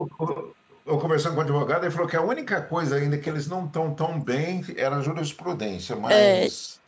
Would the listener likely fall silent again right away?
No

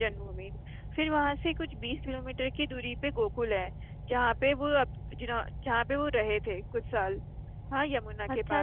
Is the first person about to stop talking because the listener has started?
Yes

